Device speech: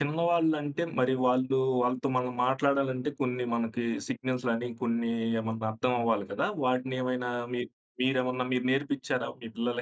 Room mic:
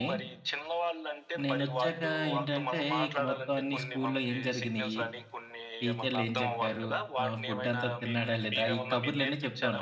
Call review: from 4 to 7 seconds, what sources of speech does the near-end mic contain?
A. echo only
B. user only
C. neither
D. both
D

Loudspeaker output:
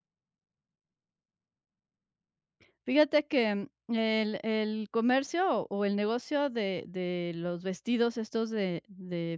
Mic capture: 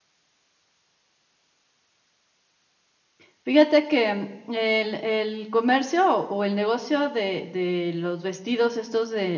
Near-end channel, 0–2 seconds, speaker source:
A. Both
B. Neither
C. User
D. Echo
B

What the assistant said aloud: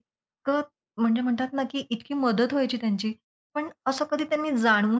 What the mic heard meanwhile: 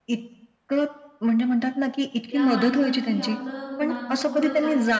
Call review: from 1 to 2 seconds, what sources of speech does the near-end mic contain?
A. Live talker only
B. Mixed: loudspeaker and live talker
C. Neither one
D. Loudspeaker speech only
D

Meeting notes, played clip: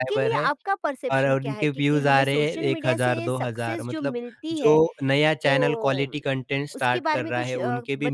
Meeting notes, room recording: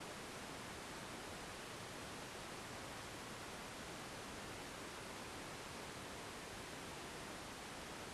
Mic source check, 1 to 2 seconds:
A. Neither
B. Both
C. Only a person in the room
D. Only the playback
A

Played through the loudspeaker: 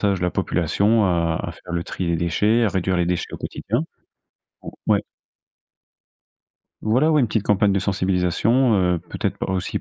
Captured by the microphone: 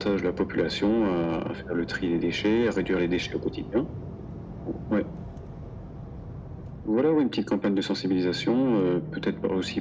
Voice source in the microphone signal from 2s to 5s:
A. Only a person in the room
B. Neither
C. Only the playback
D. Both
C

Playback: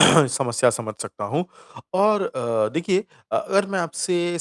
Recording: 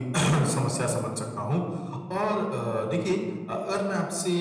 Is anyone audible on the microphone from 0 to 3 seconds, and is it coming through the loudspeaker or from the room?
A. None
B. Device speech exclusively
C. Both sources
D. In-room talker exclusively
B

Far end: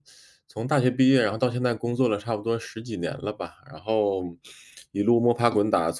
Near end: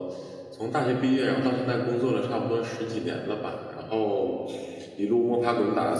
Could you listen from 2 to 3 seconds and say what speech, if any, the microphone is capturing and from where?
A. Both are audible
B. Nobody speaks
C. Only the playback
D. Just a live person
C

